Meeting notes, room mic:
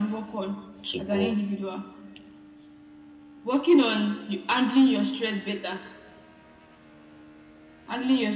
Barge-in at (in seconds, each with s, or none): 0.8 s